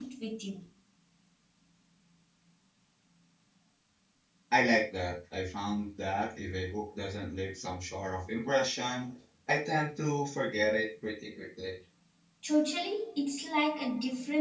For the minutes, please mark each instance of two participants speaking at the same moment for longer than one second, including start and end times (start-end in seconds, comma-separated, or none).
none